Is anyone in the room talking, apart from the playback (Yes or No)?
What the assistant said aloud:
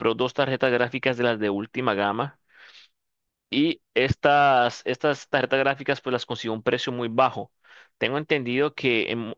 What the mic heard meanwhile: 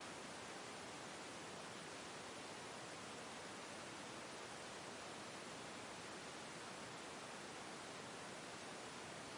No